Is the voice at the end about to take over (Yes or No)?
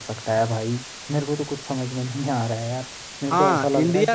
Yes